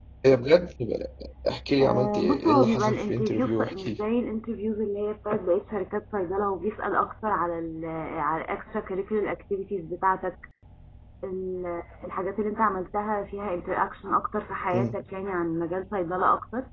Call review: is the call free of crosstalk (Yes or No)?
No